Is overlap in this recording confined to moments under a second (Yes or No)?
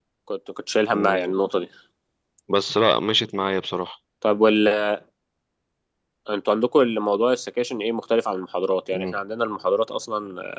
Yes